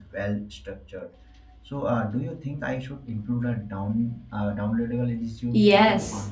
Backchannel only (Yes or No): No